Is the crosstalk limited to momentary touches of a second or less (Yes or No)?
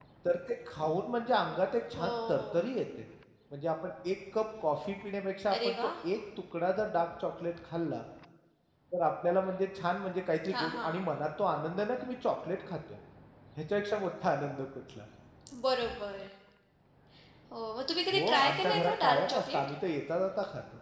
No